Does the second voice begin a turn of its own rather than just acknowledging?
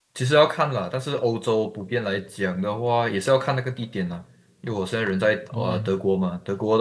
No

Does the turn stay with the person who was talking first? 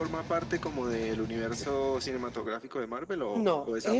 No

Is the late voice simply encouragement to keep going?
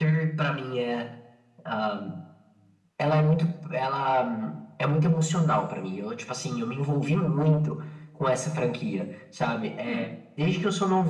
Yes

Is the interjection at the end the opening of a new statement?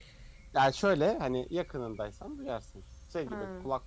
No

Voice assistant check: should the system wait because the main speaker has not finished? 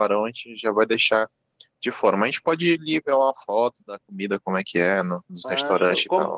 No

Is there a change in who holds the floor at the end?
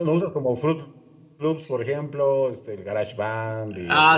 Yes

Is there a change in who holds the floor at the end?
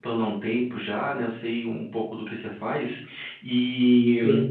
No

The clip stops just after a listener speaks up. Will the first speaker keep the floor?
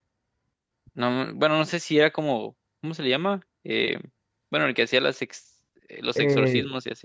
No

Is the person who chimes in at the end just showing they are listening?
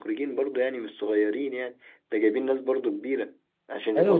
No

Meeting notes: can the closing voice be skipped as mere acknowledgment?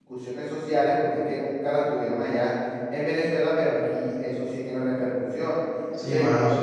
No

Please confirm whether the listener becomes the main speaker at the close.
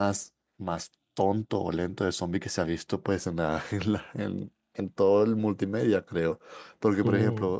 No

